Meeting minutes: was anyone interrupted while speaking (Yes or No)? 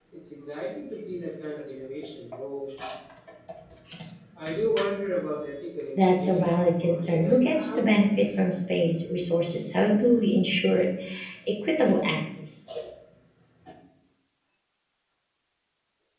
Yes